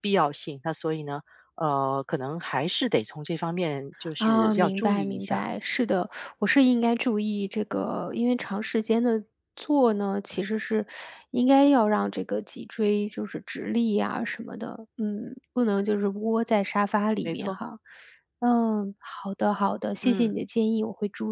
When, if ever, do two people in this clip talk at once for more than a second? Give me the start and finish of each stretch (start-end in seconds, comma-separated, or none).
4.2-5.4